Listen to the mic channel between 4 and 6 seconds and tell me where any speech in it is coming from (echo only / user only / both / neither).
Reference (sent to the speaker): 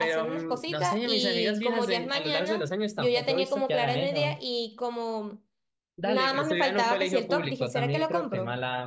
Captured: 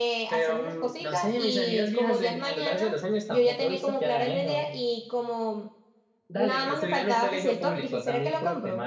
echo only